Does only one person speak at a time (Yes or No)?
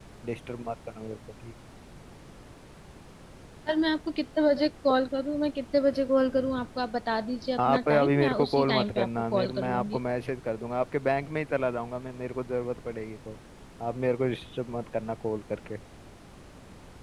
No